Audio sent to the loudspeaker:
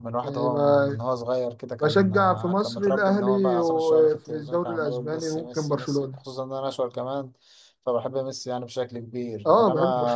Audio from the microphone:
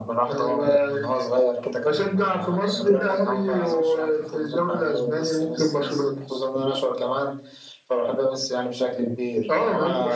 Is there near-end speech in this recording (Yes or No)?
No